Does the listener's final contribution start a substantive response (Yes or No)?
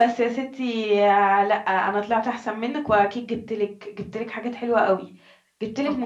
No